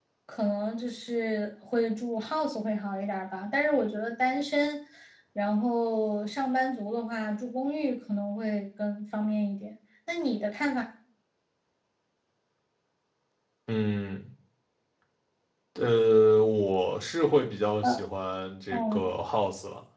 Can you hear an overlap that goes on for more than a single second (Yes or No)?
No